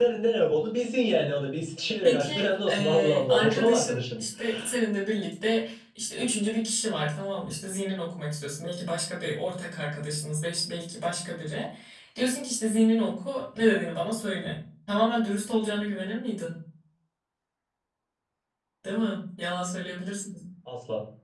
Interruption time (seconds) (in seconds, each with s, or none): 2.0 s